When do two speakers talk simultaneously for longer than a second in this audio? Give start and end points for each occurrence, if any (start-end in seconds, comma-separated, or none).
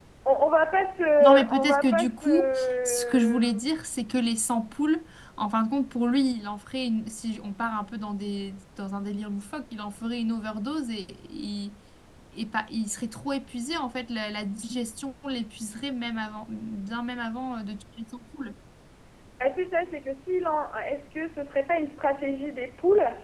1.2-3.5